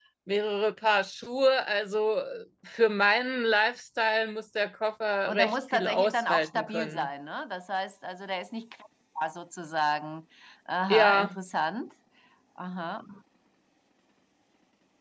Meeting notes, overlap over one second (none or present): present